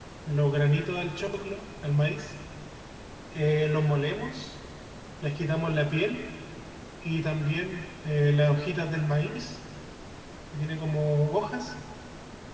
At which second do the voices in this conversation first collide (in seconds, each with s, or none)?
none